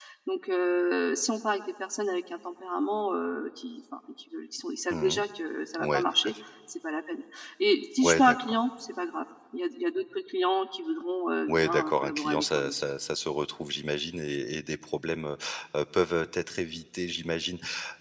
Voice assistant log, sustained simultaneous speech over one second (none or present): present